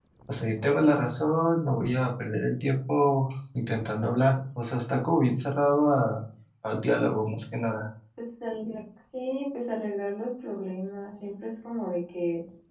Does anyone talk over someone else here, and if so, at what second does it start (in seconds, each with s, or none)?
none